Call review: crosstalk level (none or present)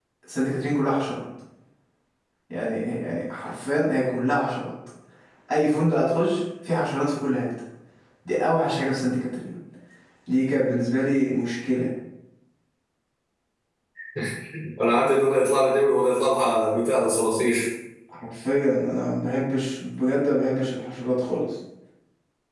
none